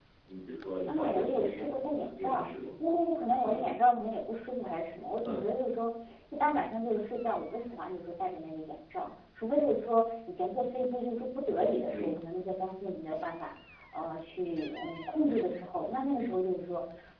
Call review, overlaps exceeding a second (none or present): present